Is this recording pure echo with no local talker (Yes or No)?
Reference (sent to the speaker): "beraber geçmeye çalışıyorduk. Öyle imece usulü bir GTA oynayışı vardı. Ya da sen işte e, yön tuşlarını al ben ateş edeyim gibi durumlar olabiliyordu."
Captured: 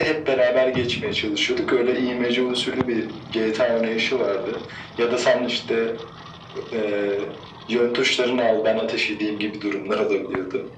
Yes